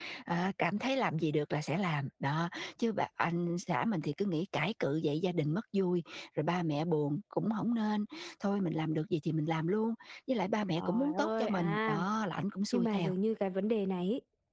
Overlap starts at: 10.8 s

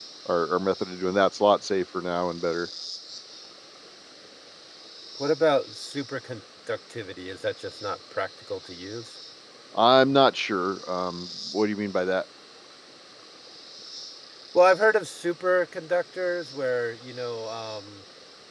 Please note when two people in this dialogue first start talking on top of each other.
none

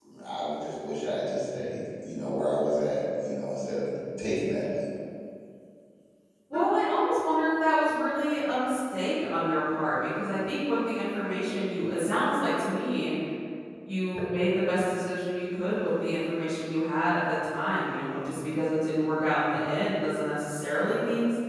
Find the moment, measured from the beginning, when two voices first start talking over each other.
none

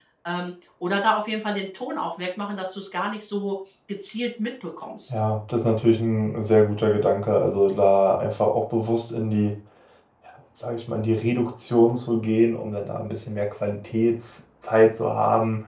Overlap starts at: none

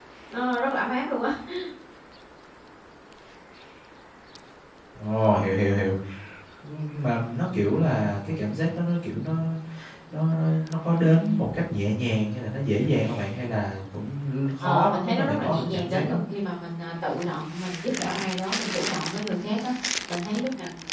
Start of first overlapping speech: 14.6 s

